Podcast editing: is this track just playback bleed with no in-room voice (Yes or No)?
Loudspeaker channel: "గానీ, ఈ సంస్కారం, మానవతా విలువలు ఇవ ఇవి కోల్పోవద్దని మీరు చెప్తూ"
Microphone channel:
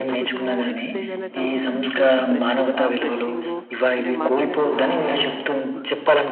No